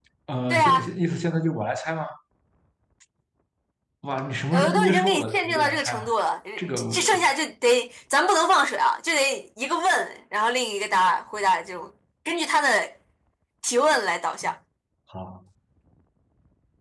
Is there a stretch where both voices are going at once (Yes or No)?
Yes